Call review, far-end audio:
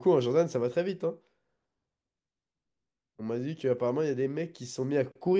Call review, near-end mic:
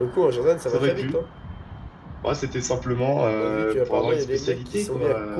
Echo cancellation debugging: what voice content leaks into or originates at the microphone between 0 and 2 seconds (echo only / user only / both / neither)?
both